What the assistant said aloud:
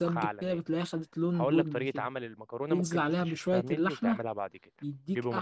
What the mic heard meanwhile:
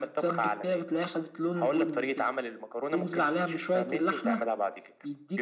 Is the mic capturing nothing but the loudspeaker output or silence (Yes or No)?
Yes